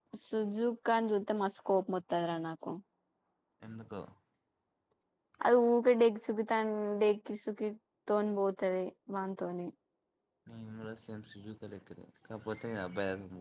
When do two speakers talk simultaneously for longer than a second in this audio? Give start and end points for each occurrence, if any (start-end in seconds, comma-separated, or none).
none